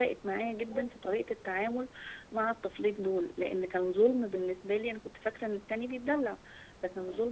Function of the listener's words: listening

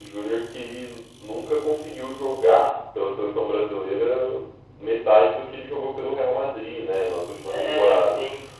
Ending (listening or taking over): listening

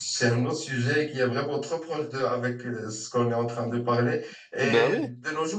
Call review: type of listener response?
listening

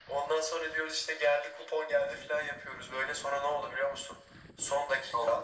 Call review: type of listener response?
listening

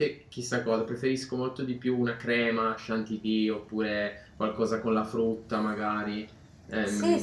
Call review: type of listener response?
taking over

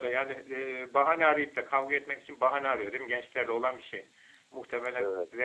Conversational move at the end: listening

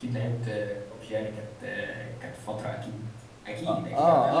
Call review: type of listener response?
taking over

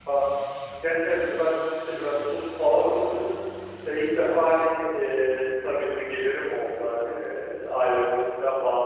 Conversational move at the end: listening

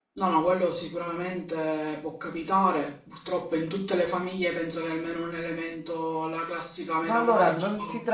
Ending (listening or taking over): taking over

